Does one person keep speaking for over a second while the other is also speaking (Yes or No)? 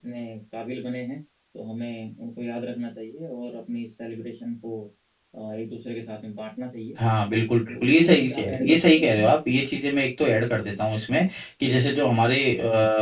Yes